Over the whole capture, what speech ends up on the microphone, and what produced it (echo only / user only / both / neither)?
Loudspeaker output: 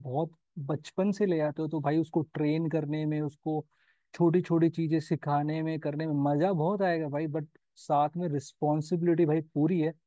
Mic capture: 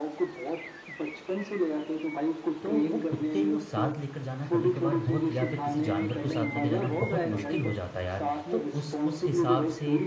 both